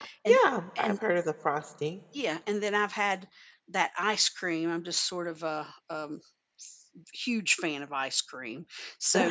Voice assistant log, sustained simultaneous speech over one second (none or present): none